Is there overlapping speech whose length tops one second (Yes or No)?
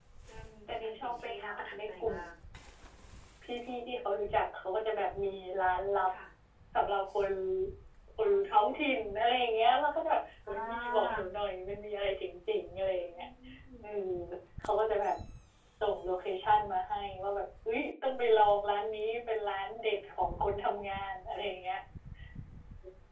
Yes